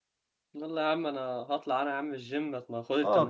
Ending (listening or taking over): taking over